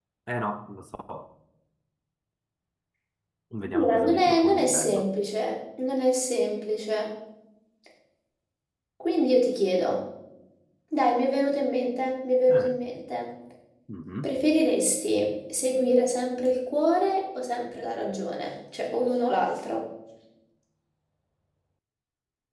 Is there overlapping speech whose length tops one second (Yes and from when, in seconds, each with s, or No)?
Yes, from 3.7 s